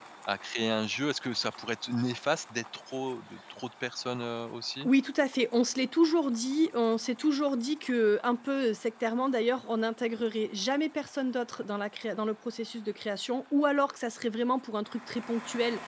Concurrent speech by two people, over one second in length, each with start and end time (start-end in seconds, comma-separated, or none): none